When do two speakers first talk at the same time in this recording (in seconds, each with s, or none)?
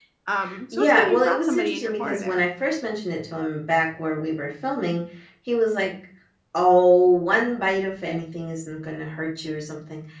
0.7 s